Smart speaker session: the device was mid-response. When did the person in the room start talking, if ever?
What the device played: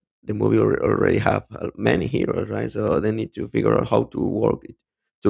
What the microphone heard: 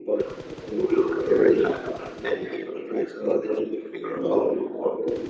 none

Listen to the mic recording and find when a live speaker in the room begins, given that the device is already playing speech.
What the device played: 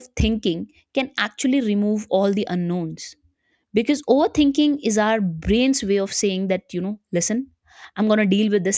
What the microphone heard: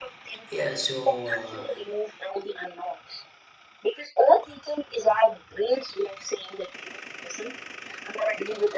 0 s

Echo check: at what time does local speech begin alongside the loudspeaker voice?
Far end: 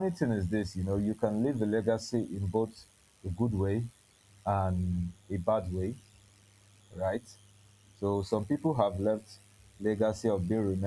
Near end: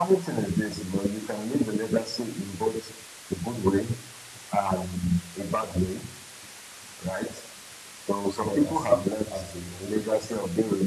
8 s

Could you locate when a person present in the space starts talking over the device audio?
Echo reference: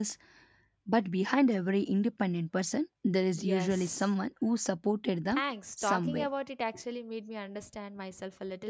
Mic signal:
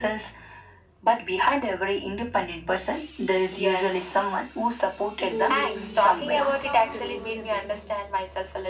5 s

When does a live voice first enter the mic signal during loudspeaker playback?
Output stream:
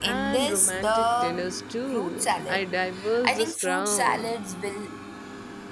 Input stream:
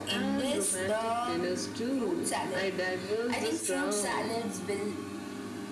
none

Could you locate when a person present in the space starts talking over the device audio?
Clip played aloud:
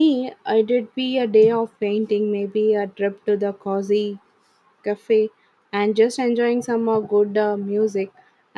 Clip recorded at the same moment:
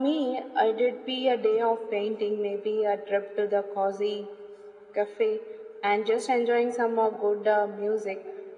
none

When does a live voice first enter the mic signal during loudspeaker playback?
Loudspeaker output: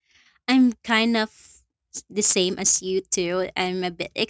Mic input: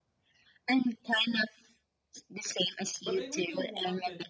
3 s

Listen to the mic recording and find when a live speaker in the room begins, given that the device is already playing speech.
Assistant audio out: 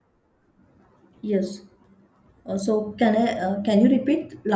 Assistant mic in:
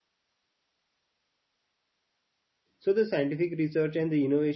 3 s

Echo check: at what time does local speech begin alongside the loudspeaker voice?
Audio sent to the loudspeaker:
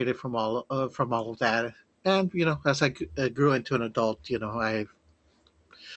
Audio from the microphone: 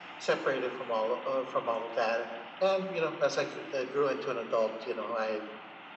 none

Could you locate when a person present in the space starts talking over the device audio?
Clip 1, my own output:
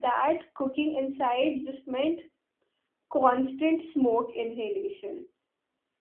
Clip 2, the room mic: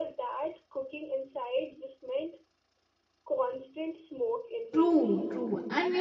5 s

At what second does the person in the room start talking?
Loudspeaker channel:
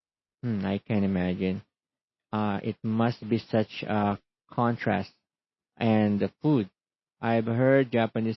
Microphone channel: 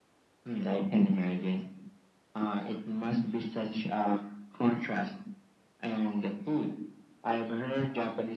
none

